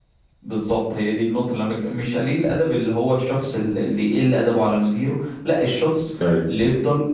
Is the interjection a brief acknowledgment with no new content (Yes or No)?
Yes